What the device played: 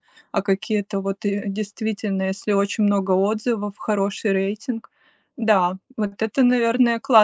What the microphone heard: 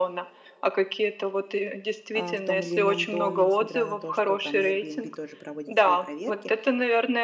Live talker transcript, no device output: а, в том или ином доме, несмотря на то, что там Airbnb тоже проводит свои проверки.

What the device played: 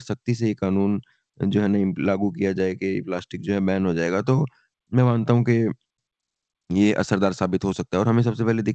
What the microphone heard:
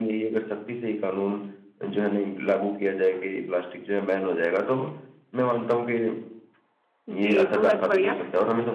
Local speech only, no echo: जी, बहुत बढ़िया।

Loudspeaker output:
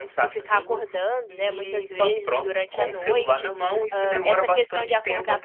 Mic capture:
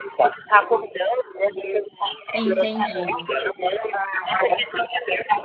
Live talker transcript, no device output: entendi.

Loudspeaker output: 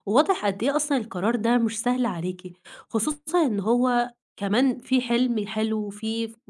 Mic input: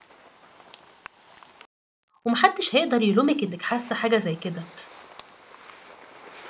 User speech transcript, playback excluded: وما حدش هيقدر يلومِك إنِّك حاسة حاجة زي كده،

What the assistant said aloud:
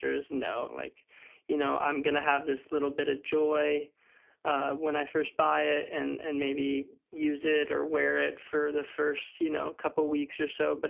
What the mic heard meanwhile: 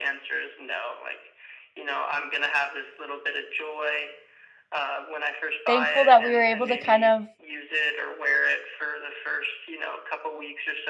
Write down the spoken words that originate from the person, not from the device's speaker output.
thankful that we were able to kind of

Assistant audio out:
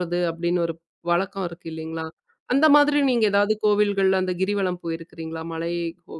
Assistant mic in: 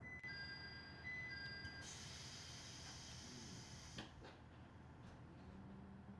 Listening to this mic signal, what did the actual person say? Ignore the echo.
none

